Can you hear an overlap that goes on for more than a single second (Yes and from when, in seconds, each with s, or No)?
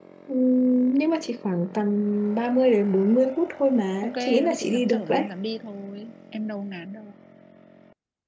Yes, from 4.0 s